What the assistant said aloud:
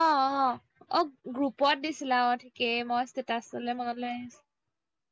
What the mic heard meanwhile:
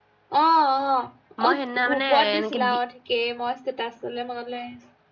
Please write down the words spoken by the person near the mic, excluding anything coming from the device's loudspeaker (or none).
মই সিদিনা মানে এনেকে দি